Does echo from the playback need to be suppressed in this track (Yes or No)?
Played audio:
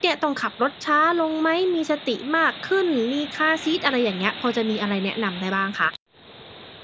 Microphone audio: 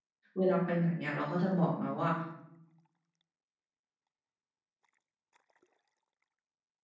No